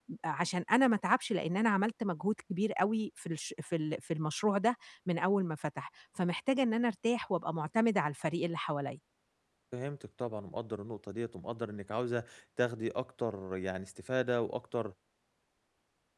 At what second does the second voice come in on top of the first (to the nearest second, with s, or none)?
none